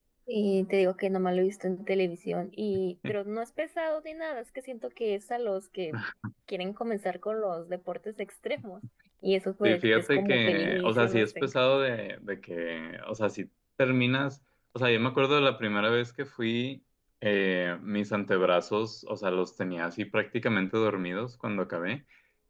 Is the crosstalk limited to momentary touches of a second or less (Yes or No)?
No